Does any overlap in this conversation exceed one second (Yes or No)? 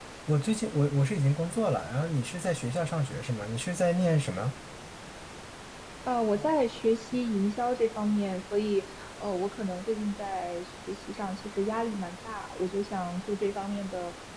No